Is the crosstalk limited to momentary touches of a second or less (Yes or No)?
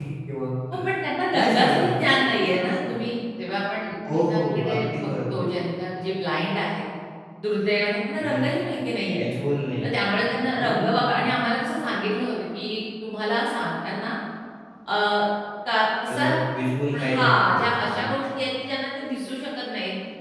No